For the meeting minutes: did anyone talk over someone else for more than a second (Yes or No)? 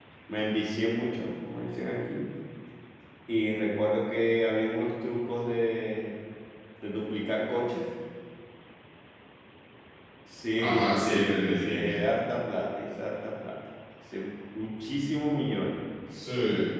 Yes